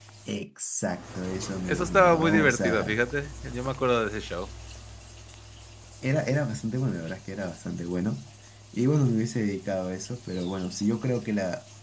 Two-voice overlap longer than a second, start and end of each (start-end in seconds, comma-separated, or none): 1.7-3.0